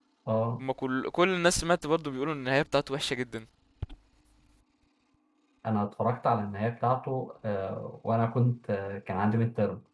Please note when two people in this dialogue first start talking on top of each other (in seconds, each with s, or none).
none